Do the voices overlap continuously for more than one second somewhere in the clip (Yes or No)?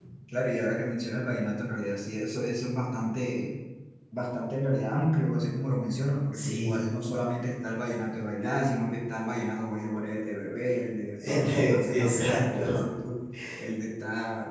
Yes